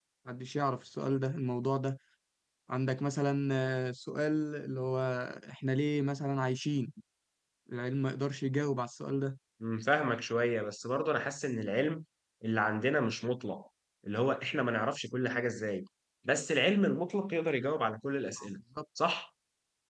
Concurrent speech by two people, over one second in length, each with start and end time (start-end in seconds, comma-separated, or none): none